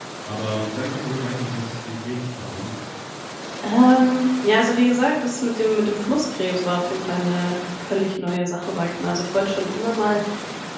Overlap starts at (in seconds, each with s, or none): none